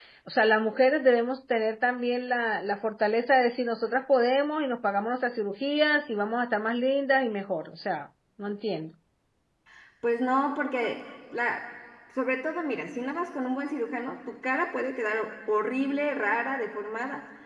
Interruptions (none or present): none